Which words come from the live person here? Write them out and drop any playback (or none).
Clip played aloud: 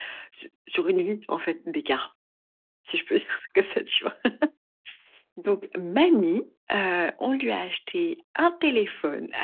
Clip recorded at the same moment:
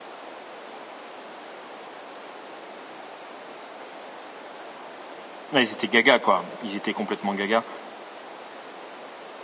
Ouais, ils étaient gaga, quoi. Ils étaient complètement gaga,